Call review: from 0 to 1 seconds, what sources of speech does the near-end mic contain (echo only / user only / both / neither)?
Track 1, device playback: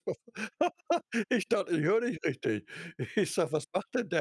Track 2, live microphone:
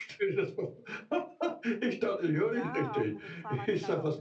echo only